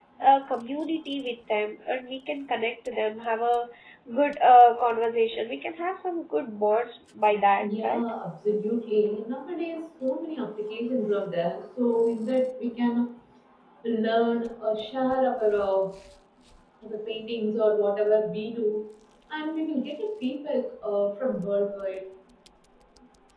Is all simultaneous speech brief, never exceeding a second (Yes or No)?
Yes